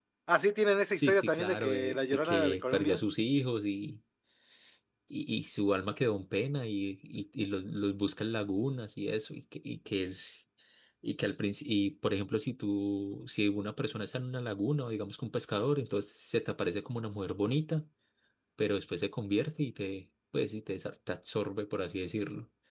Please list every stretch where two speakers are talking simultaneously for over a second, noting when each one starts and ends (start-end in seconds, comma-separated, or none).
0.9-3.0